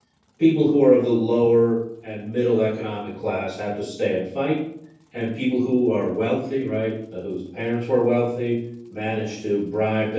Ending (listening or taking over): listening